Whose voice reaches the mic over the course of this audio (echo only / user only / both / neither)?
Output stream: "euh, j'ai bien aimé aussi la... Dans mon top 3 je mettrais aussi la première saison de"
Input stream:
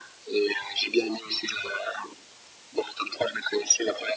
echo only